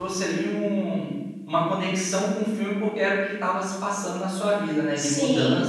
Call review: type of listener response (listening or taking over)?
taking over